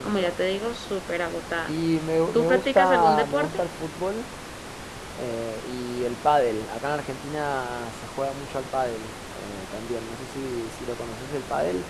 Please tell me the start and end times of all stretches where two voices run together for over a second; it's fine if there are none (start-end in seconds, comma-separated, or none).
2.3-3.6